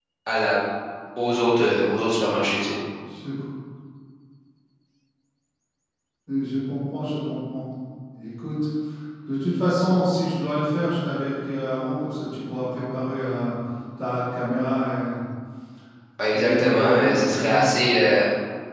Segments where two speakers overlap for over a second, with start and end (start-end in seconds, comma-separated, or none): 16.3-17.6